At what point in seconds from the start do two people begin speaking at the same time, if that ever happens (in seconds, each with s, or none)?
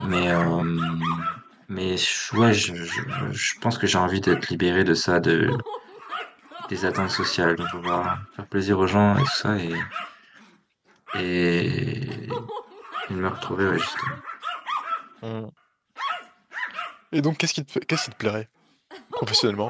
none